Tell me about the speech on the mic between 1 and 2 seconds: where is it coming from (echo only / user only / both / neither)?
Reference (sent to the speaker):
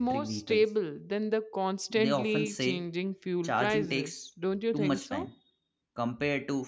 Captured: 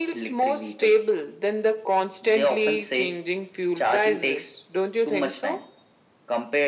echo only